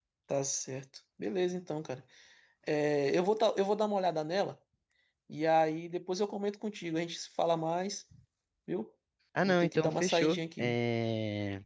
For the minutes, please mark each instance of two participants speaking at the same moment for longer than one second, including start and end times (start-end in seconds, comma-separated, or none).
9.4-10.8